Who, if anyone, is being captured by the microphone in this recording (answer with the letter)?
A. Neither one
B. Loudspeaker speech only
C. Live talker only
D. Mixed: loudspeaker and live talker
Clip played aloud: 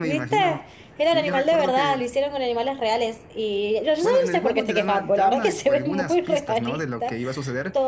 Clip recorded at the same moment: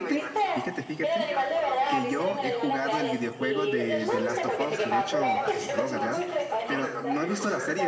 D